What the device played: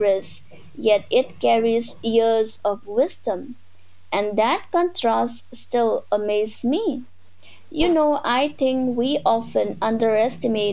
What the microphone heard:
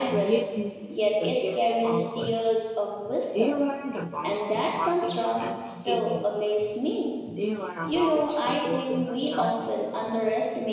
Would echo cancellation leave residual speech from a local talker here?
Yes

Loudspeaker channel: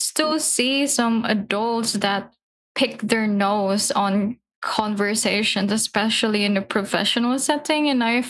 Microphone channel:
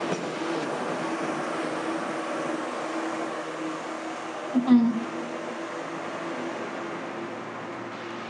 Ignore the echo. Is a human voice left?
Yes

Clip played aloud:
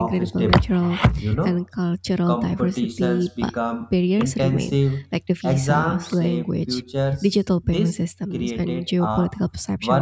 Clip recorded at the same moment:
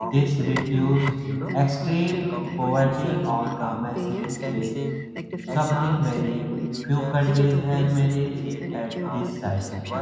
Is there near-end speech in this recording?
Yes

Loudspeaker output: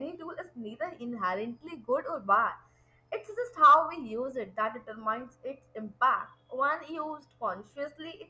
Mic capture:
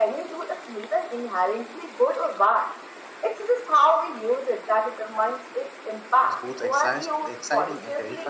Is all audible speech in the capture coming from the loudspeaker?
No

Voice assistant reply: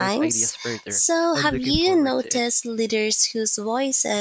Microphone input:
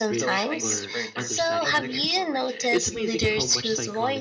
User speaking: Yes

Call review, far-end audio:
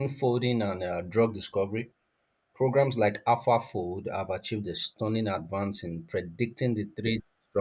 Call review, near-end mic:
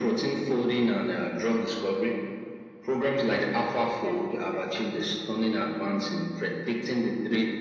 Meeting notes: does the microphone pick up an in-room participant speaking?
Yes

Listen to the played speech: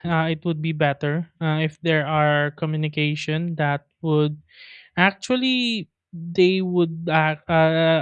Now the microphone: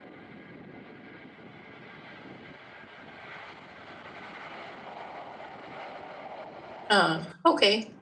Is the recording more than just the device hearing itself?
Yes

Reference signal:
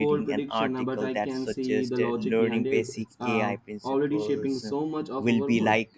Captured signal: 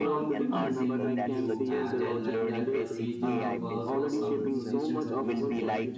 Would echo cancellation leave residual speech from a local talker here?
Yes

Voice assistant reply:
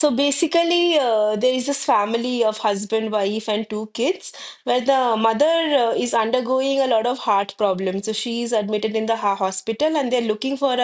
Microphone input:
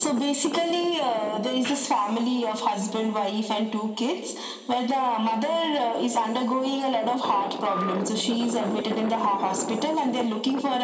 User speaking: No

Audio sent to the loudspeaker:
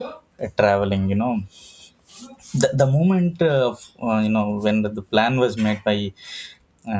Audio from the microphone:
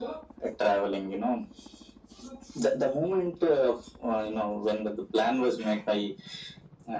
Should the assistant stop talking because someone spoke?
No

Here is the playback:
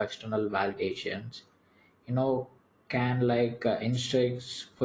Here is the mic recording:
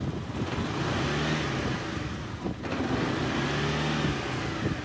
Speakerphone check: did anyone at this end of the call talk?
No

